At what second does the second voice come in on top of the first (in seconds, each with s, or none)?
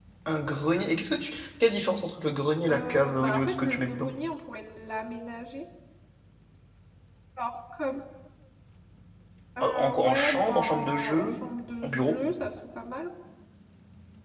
2.7 s